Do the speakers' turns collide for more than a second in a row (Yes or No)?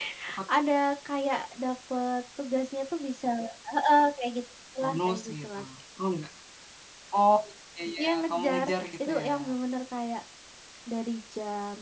Yes